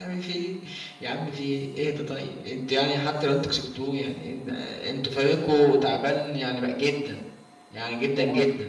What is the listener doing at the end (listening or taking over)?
taking over